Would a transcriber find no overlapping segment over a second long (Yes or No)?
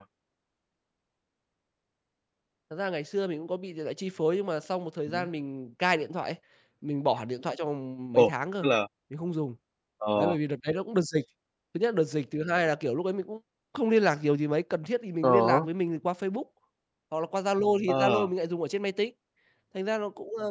Yes